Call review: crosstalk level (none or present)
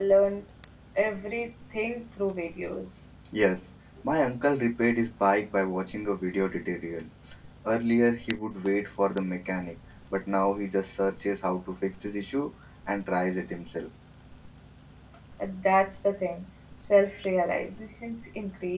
none